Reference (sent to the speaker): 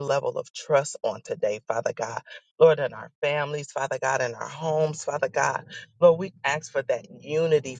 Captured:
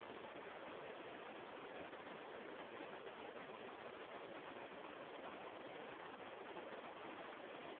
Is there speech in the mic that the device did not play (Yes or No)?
No